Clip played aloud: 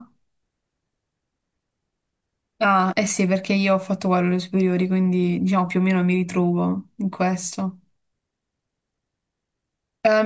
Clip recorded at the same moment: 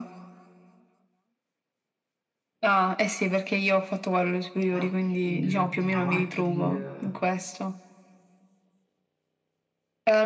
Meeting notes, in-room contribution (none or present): present